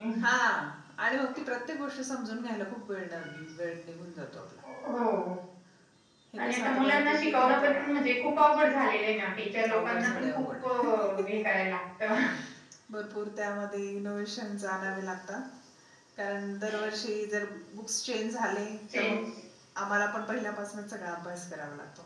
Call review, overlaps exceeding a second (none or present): present